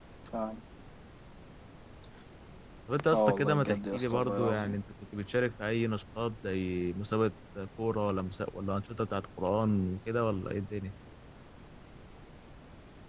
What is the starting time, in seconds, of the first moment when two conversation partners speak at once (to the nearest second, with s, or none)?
3 s